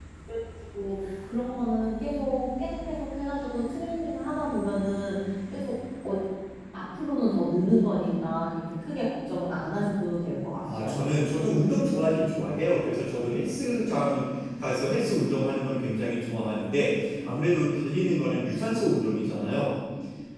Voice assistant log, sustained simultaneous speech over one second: none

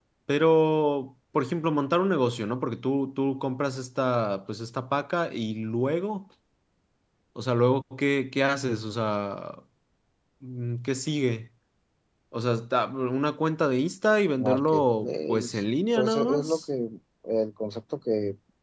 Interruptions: present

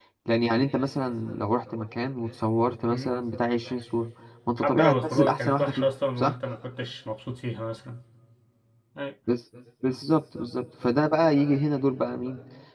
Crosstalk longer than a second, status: present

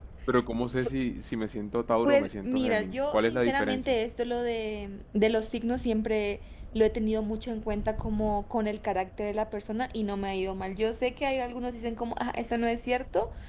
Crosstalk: present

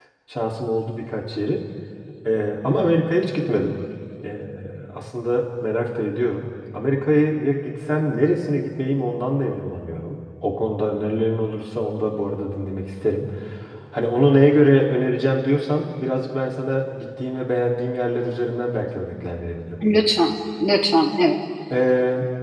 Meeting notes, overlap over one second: none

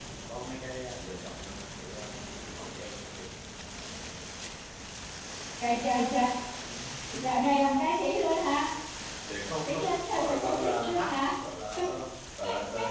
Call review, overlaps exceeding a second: present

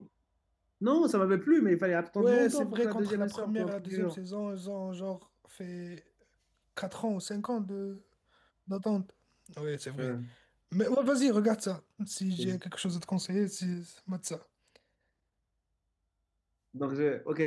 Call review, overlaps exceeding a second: present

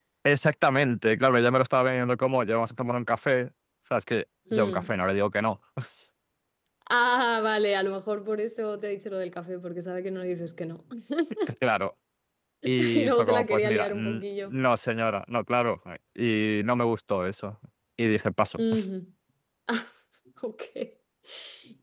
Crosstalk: present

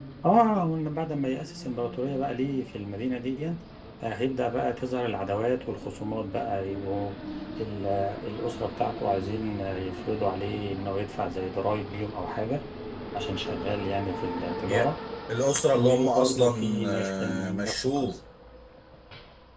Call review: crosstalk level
present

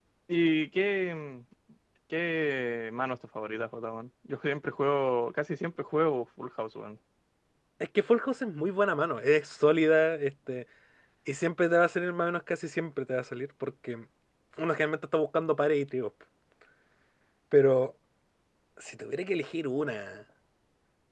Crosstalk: none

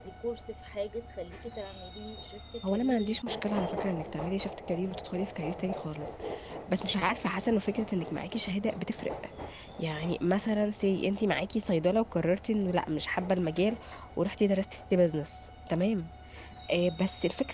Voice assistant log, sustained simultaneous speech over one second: present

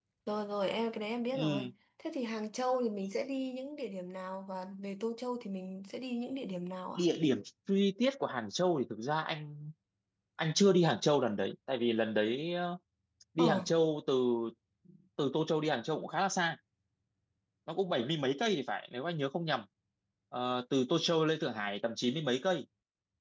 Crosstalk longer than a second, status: none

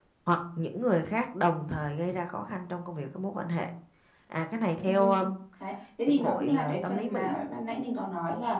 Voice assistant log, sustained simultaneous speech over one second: present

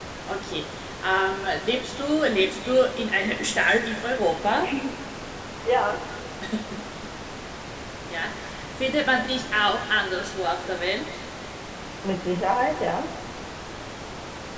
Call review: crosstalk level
none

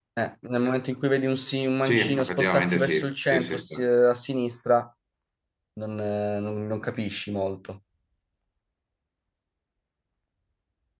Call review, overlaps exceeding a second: present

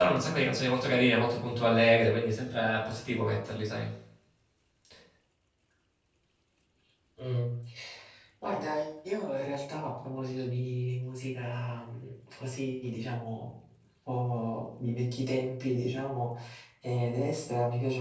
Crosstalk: none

